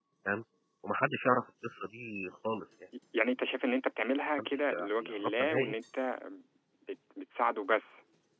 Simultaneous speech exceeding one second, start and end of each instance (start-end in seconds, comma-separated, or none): 4.4-5.8